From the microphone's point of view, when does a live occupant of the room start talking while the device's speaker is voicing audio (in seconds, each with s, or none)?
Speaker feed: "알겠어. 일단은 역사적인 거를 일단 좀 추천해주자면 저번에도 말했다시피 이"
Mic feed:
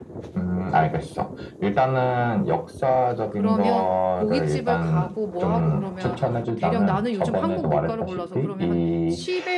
3.3 s